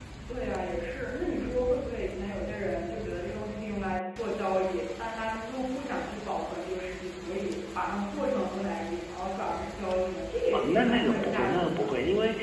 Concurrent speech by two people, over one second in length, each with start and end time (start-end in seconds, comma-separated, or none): 10.5-11.9